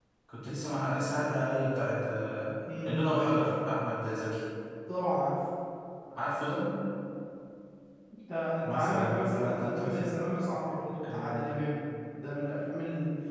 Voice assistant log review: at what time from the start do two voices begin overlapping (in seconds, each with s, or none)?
8.6 s